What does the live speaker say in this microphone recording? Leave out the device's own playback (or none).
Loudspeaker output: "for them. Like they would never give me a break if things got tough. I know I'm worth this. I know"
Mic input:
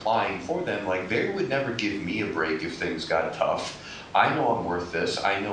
none